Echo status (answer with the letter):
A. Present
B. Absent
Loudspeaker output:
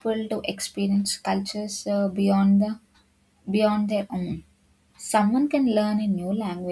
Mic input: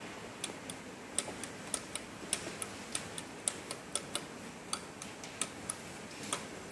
B